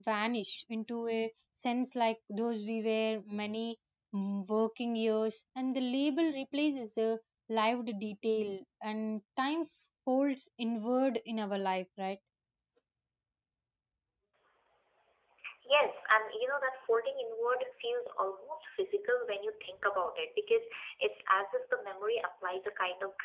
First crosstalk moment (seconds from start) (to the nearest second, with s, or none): none